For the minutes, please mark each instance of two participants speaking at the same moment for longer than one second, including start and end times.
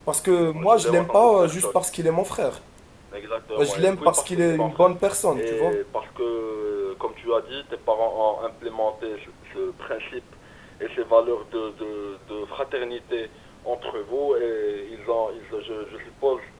0.5-1.8, 3.6-4.9

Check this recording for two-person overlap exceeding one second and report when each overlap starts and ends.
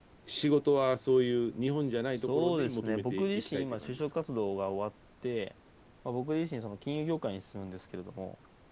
2.1-4.0

